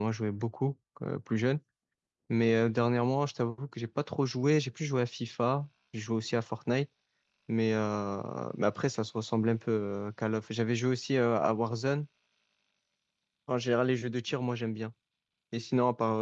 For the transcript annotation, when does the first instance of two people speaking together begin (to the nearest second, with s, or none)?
none